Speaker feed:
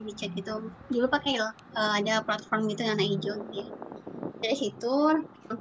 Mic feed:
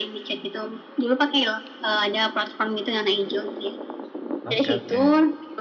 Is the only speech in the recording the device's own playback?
No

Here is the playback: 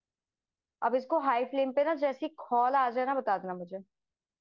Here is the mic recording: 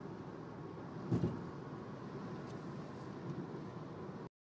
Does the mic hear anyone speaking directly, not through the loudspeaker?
No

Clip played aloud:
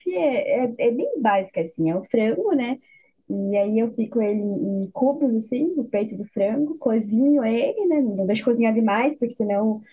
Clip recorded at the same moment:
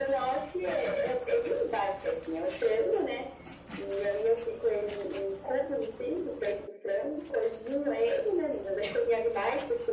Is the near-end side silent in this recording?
Yes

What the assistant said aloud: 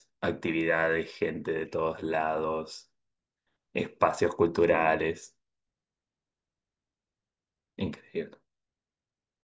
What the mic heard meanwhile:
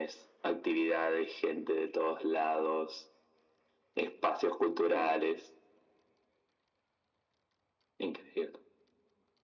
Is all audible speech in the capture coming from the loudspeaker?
Yes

